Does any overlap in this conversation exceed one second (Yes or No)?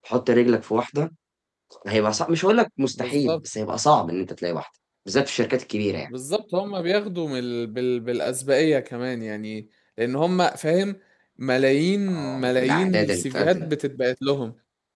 Yes